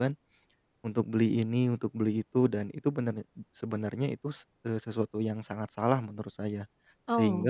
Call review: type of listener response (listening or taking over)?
listening